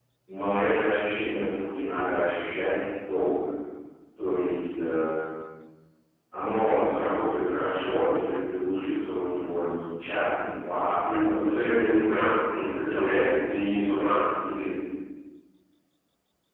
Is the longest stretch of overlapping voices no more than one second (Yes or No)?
No